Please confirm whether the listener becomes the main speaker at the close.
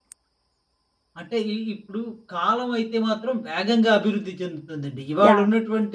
No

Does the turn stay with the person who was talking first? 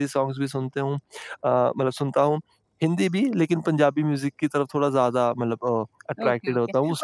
No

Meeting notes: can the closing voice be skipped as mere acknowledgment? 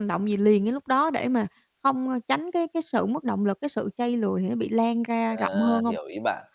No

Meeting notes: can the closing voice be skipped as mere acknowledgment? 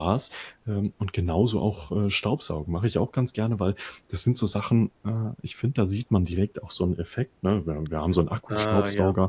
Yes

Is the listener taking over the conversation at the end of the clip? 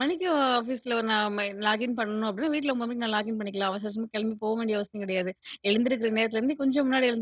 No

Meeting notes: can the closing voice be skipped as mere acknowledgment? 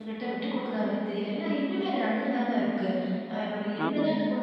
Yes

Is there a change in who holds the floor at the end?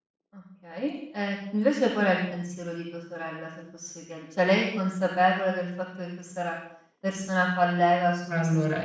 Yes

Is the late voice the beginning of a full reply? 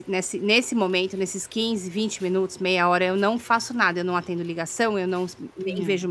No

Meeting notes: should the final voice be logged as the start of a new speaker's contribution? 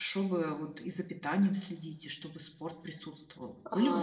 Yes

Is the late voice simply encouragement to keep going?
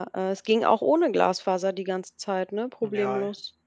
No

